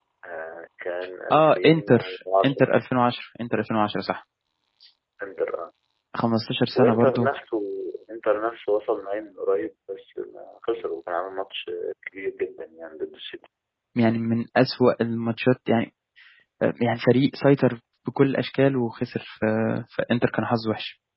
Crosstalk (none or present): present